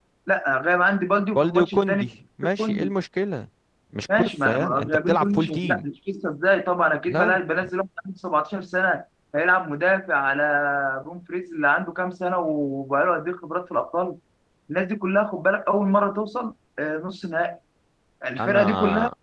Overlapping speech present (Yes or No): Yes